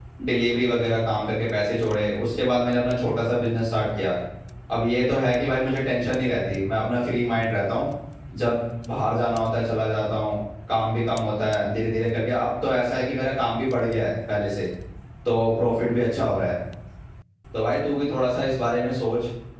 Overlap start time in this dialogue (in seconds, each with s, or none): none